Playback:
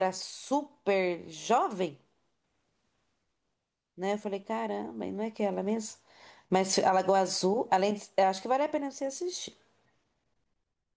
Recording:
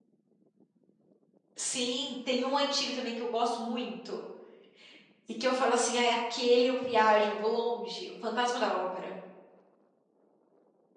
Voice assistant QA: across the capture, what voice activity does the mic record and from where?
user only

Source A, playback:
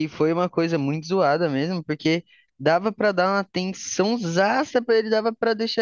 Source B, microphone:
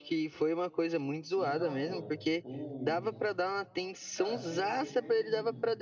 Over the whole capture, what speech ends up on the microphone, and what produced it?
both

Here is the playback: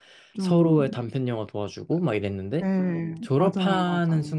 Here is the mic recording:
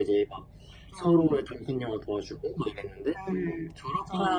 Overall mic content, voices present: echo only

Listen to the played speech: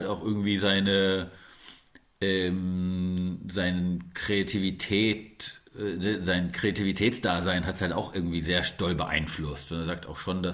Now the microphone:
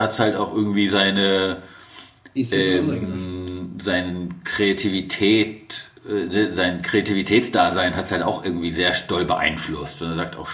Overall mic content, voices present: both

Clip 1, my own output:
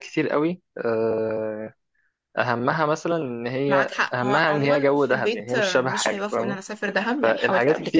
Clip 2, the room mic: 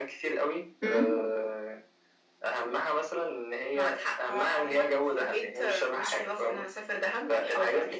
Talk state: both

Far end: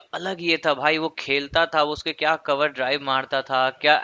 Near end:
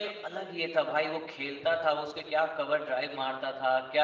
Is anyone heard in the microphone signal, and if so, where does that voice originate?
echo only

